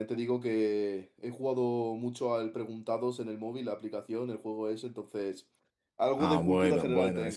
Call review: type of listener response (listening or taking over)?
taking over